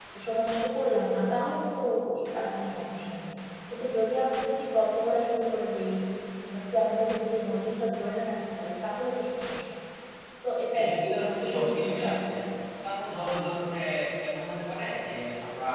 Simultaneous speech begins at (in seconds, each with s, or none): 10.7 s